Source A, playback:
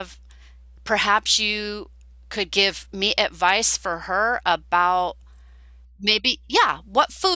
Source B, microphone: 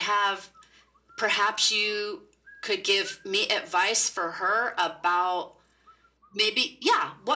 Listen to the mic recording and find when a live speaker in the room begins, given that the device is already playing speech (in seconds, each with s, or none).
none